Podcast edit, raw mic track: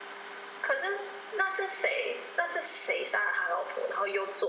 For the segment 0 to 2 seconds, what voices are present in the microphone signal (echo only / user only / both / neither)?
echo only